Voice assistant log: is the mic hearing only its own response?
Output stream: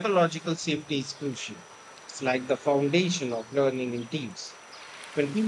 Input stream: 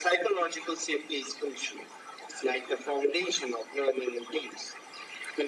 Yes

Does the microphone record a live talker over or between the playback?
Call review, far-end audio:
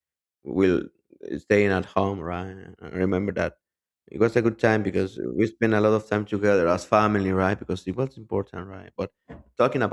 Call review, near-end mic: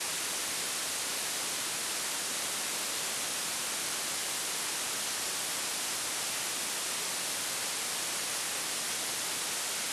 No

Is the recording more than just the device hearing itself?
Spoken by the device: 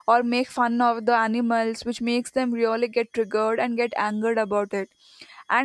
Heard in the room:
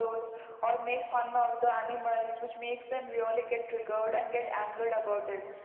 No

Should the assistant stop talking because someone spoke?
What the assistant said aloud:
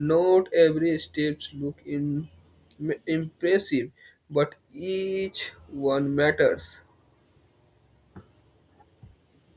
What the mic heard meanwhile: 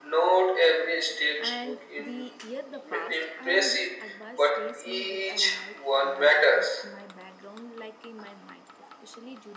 Yes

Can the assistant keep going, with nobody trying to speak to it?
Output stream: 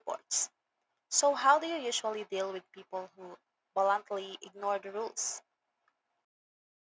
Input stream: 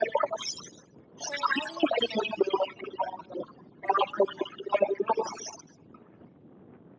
Yes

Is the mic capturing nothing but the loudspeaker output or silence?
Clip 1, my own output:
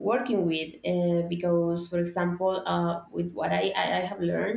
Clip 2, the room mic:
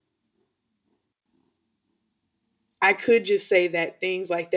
No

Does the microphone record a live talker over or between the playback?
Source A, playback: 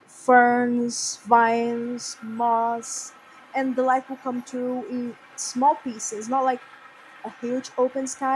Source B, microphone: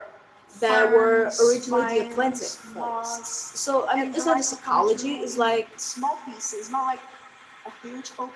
Yes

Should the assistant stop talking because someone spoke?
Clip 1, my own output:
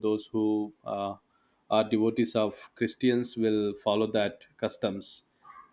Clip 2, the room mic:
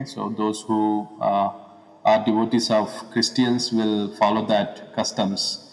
No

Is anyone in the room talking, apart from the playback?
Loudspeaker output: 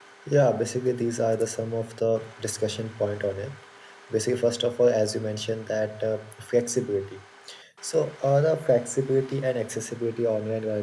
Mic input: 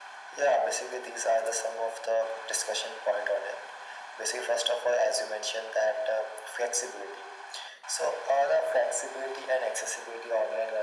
No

